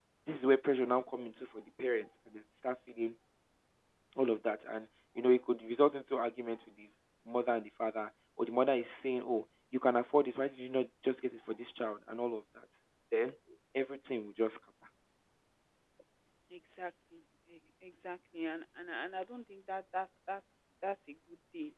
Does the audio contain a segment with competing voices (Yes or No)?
No